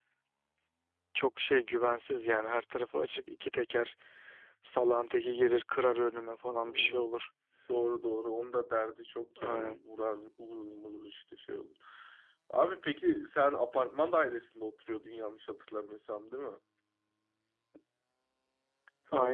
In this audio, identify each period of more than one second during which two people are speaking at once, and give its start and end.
none

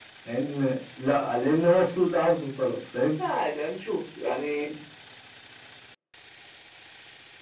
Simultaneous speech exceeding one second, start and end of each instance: none

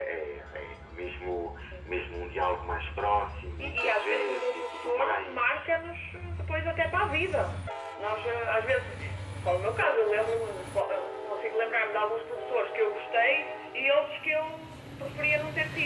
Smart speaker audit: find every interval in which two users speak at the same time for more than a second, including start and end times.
3.6-5.4

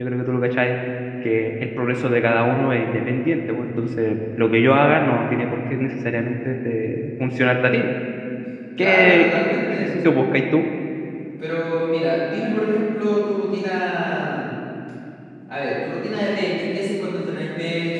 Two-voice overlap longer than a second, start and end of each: 8.8-10.0

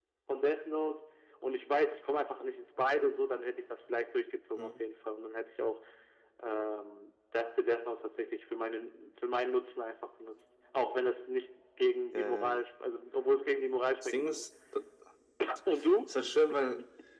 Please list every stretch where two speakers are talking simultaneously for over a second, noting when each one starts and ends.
none

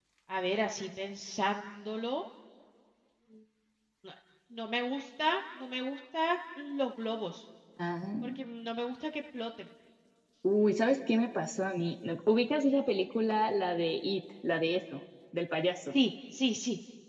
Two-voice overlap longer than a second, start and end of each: none

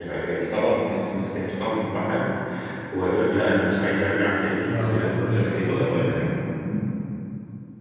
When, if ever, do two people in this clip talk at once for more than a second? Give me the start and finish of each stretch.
4.6-6.3

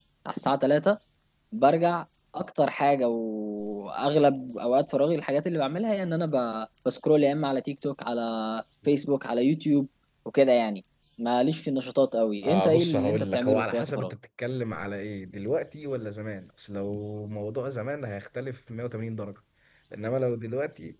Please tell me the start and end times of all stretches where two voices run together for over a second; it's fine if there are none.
12.4-14.1

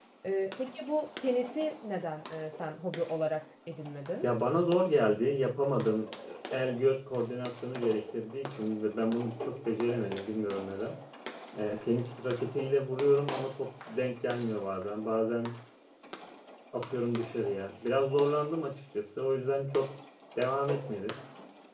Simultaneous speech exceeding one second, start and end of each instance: none

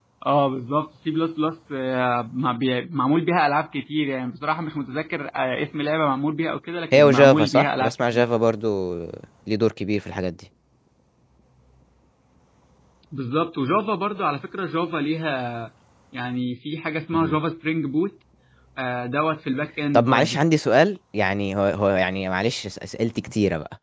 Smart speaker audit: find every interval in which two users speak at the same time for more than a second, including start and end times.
6.9-8.2

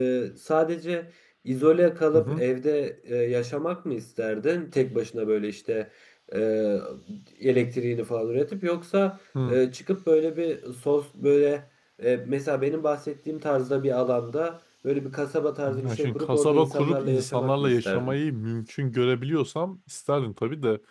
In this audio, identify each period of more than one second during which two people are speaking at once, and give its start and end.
15.8-18.1

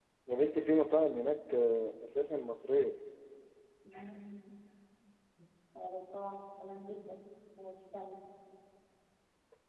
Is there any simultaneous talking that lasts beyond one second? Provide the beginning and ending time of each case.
none

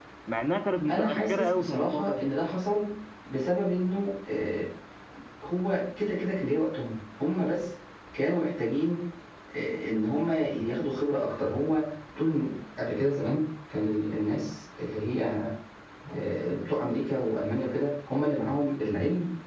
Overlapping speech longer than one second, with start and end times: 0.9-2.2

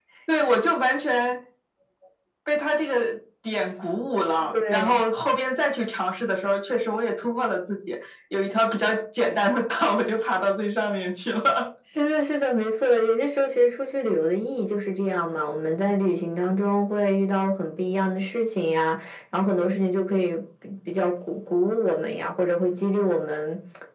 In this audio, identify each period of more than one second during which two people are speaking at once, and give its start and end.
none

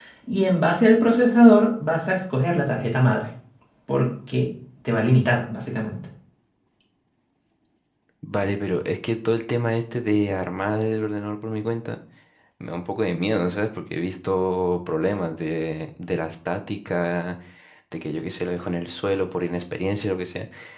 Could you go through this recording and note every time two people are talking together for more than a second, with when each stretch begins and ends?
none

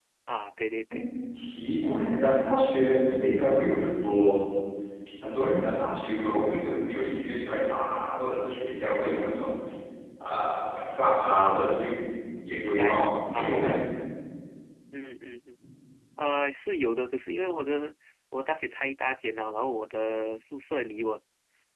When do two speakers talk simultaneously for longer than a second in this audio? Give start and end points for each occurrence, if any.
12.5-13.8

